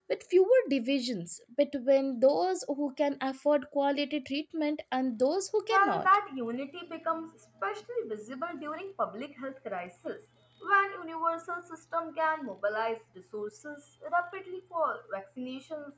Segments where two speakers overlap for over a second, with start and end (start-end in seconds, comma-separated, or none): none